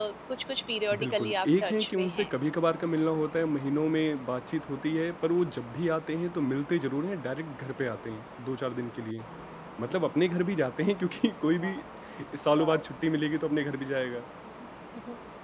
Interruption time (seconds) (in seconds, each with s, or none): 0.9 s